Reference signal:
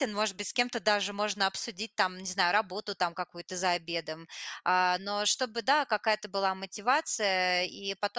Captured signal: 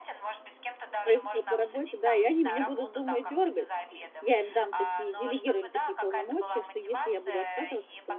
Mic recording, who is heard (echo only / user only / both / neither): both